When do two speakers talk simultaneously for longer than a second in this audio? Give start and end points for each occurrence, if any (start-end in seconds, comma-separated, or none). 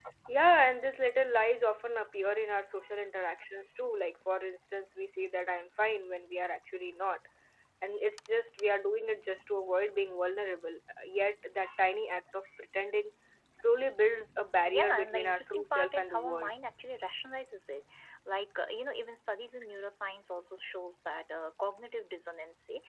14.8-16.5